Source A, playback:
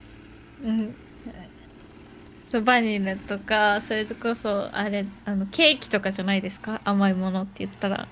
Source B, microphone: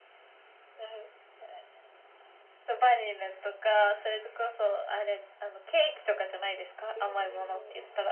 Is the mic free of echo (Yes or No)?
No